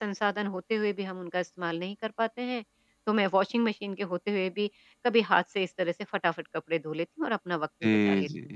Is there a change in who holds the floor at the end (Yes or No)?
Yes